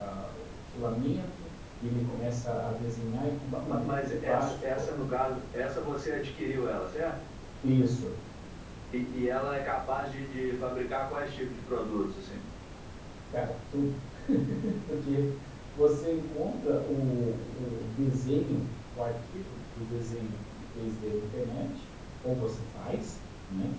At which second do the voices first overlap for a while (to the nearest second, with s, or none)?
3 s